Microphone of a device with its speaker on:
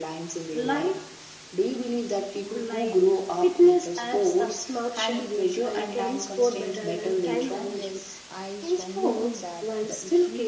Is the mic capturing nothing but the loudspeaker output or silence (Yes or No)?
No